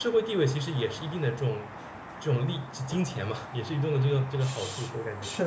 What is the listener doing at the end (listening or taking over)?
taking over